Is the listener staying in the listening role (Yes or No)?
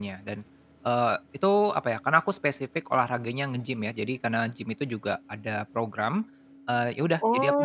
No